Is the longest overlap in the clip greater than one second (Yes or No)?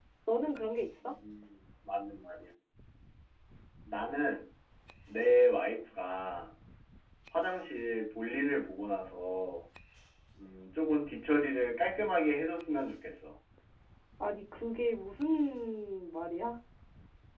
No